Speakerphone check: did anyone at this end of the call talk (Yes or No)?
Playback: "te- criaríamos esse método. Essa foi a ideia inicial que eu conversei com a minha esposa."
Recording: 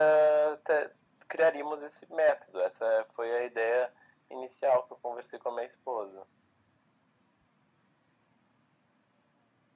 No